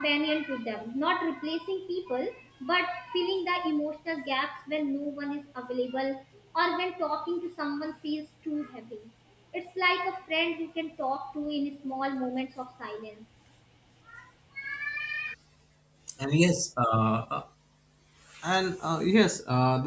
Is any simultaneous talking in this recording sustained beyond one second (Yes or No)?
No